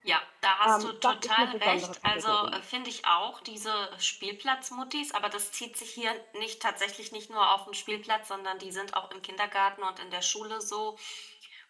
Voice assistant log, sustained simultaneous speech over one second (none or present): present